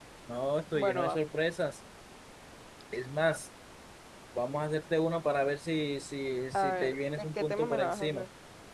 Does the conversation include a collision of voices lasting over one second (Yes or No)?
Yes